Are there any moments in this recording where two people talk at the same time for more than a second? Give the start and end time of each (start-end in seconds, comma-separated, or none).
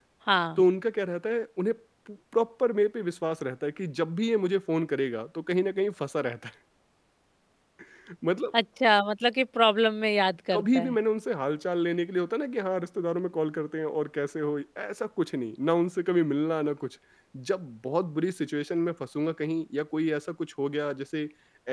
none